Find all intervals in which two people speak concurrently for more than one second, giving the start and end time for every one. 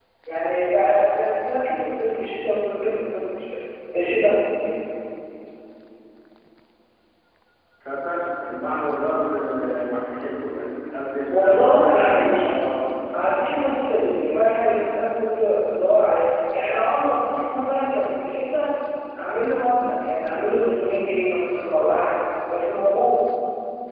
11.3-12.5

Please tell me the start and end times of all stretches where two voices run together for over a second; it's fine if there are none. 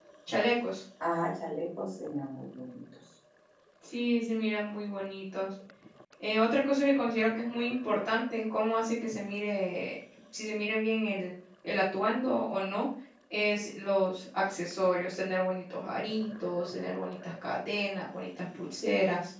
none

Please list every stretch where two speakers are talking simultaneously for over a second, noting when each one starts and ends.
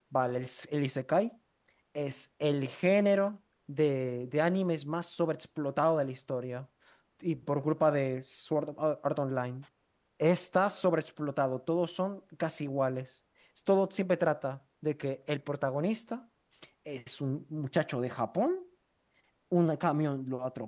none

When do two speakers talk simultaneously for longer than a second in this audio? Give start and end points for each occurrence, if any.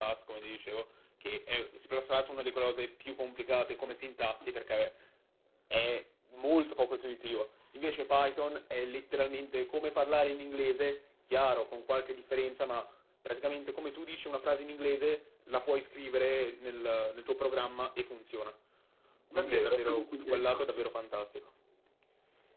19.3-20.9

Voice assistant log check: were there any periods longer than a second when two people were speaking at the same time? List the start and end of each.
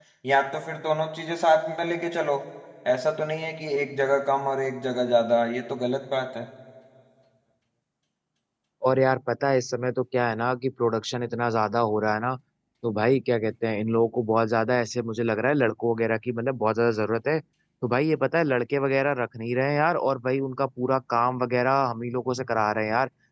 none

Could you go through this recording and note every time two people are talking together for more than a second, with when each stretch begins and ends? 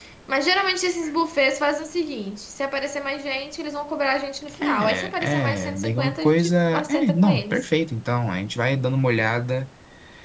4.6-7.7

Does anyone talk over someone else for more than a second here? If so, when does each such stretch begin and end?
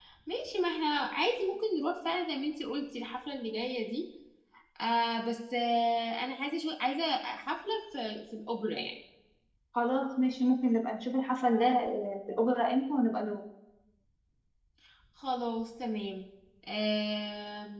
none

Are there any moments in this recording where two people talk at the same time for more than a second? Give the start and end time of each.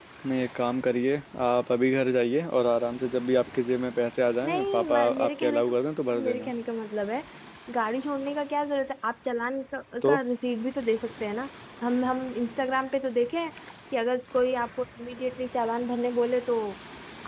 4.4-5.7

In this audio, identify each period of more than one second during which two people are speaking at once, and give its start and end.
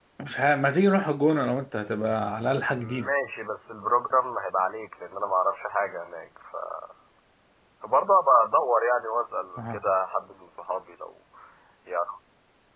none

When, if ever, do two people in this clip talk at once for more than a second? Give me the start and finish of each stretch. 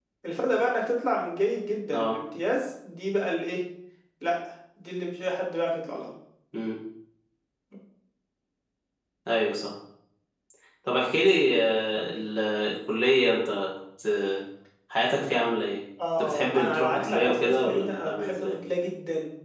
16.2-18.6

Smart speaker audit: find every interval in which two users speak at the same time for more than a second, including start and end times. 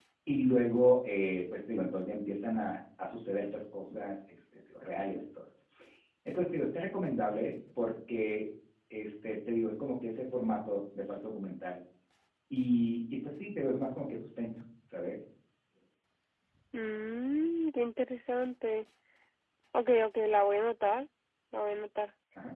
none

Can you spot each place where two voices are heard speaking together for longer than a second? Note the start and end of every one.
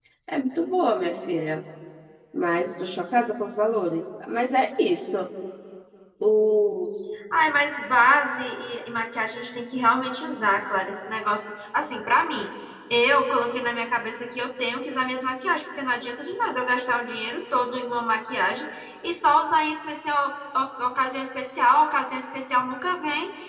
none

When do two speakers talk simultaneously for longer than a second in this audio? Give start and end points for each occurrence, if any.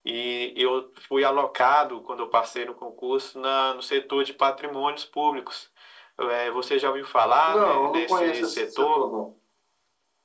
7.5-9.0

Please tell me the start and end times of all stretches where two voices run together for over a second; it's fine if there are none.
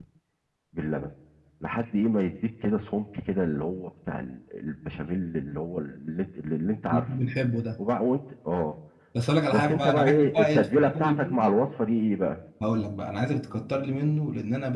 9.5-11.4

